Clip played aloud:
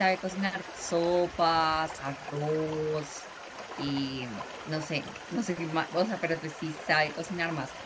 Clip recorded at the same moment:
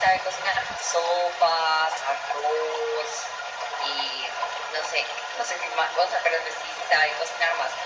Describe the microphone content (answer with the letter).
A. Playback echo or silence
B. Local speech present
A